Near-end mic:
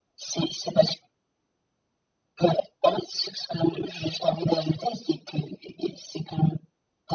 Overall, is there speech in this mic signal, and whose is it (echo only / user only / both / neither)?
echo only